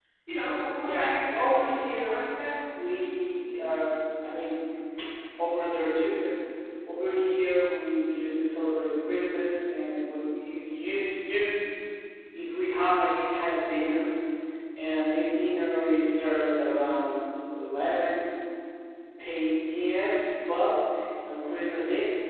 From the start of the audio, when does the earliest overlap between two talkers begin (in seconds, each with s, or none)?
0.8 s